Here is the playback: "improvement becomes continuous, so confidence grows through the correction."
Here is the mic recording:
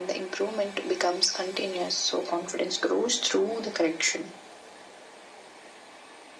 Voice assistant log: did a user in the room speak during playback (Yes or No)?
No